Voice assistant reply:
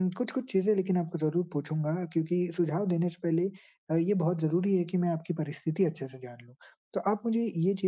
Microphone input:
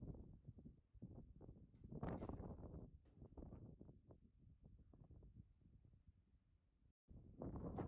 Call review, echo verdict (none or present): none